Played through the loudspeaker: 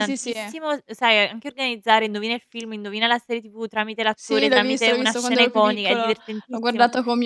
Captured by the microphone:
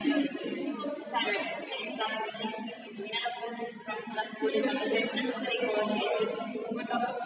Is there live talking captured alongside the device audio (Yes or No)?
No